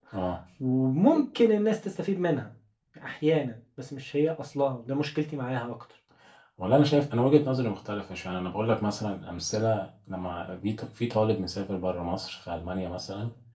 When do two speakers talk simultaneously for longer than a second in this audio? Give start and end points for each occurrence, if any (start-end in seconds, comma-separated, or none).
none